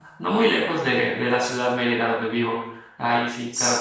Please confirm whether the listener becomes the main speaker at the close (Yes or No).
No